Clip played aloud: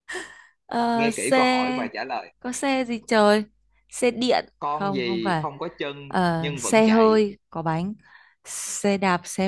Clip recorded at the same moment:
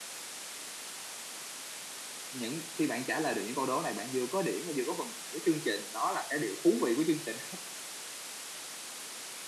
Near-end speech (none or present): present